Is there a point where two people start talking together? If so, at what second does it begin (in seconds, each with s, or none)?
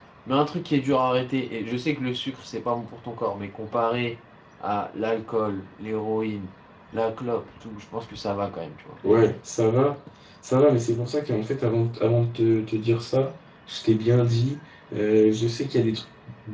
none